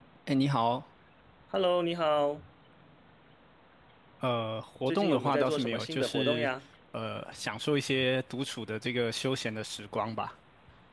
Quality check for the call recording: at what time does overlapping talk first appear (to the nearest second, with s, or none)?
5 s